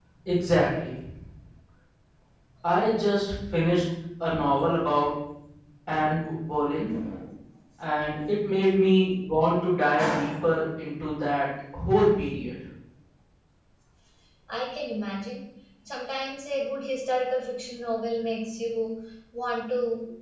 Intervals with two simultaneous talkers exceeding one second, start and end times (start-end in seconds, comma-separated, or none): none